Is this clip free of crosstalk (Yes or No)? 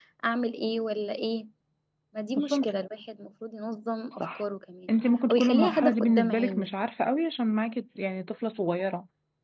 No